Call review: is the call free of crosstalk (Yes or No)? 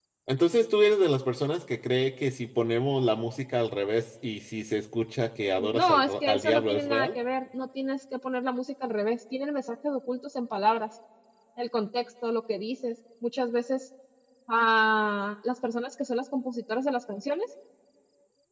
No